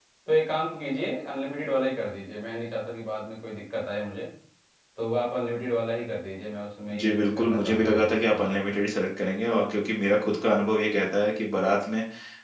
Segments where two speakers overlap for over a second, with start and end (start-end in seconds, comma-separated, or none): 7.0-8.6